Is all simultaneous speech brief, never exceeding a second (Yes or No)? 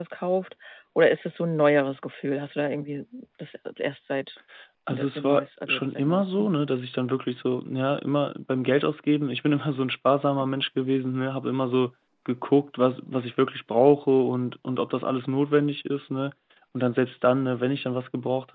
No